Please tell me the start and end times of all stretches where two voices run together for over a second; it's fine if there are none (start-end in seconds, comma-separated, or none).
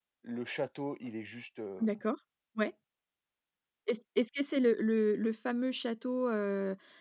none